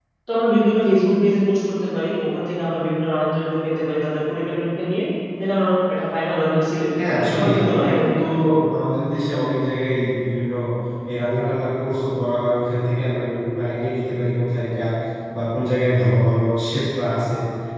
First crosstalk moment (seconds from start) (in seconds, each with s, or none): 7.0 s